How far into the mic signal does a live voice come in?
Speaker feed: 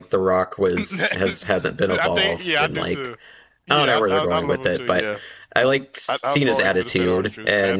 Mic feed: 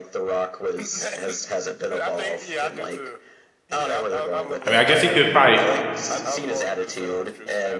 4.7 s

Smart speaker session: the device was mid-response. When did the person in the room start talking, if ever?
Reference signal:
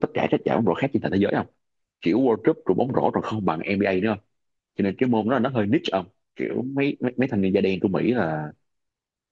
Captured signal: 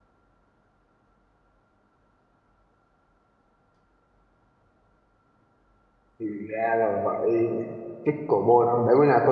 6.2 s

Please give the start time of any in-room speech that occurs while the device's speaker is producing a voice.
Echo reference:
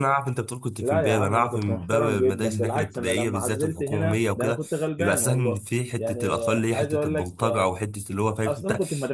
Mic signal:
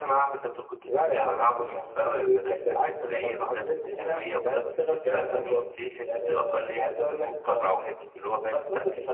none

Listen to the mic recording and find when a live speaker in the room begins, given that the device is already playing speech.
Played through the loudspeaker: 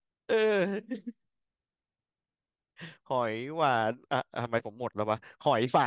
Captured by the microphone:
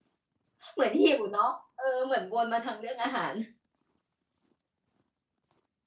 0.7 s

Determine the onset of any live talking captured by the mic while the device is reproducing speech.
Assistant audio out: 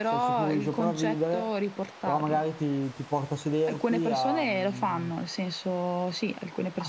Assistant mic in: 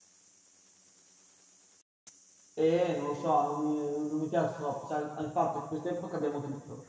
2.5 s

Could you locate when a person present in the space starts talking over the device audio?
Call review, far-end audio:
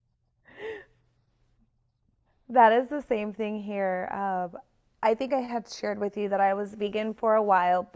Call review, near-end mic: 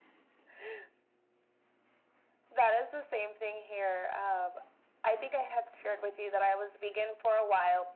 none

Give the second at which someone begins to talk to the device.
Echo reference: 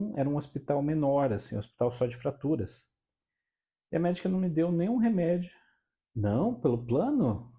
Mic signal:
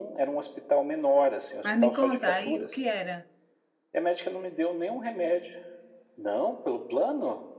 1.6 s

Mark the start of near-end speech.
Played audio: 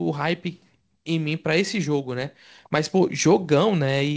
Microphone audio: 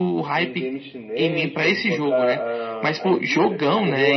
0.3 s

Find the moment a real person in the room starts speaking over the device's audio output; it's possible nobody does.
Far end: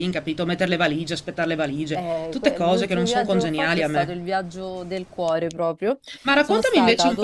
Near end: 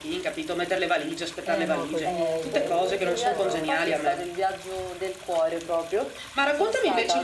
1.4 s

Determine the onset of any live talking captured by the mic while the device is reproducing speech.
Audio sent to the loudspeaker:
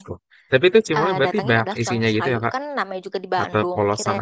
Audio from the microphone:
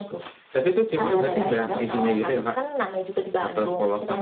1.0 s

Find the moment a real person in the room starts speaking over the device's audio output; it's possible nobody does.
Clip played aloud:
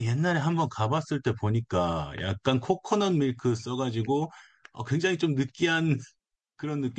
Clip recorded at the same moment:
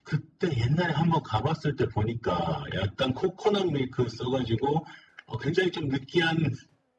none

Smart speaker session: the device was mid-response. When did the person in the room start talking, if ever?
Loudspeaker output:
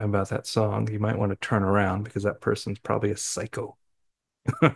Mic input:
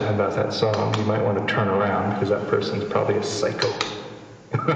none

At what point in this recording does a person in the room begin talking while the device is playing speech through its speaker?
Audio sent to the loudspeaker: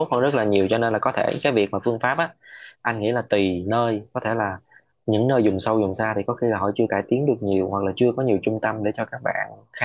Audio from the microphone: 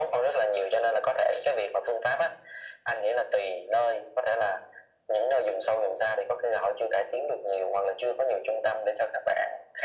none

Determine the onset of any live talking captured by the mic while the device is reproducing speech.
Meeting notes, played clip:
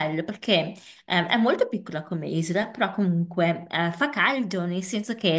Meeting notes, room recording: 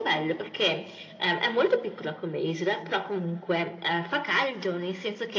none

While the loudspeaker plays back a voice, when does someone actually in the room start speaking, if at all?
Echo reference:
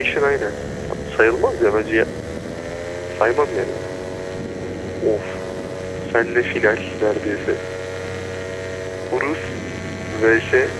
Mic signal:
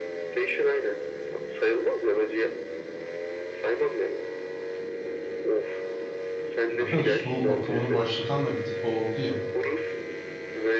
6.7 s

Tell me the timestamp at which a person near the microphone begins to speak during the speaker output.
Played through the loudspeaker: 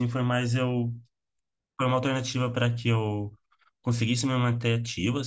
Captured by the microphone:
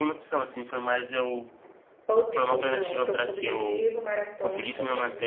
2.1 s

